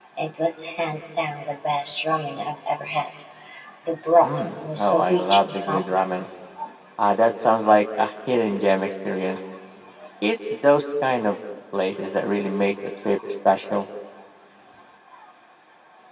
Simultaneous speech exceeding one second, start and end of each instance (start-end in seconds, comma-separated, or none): 4.2-6.3